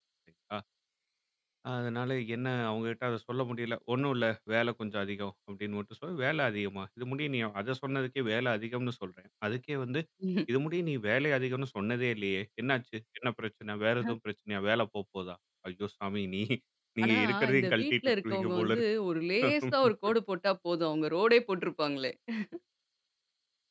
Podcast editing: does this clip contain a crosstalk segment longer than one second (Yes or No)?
Yes